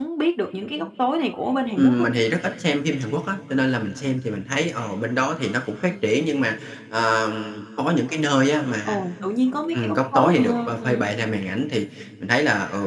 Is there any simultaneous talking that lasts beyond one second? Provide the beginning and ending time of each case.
9.7-11.1

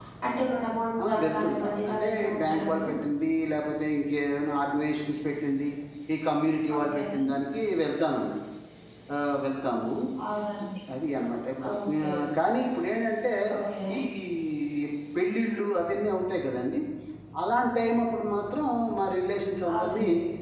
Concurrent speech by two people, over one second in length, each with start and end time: 1.0-2.9

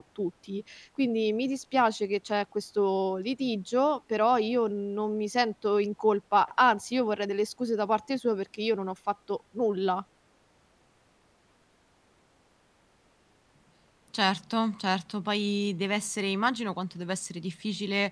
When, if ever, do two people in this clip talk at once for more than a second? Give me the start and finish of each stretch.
none

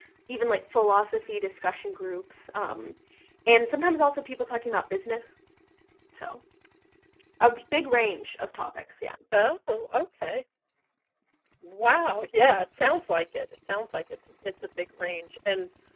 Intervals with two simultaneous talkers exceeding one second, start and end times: none

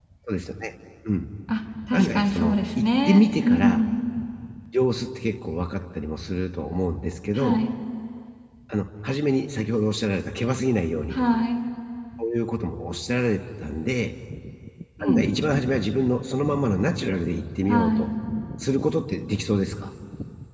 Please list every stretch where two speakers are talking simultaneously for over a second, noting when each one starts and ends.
1.9-3.8

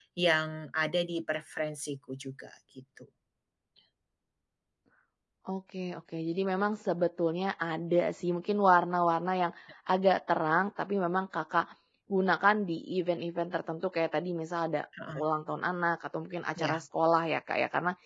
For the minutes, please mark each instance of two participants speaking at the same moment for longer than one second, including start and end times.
none

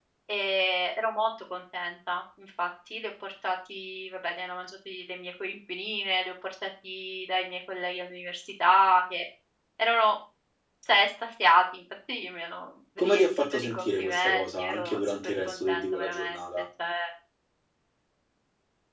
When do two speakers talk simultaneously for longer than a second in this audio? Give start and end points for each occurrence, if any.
13.0-16.6

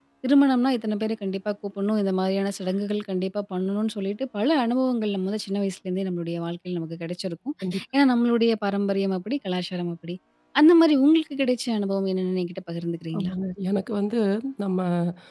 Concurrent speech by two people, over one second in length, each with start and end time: none

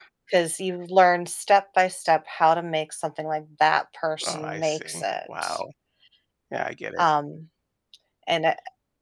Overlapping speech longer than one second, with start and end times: 4.2-5.5

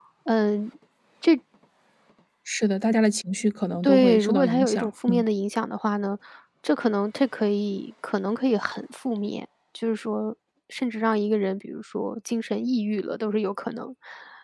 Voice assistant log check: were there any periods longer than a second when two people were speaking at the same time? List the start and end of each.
3.8-5.2

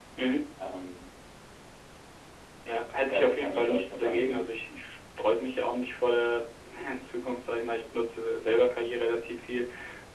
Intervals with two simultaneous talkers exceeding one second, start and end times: 3.0-4.4

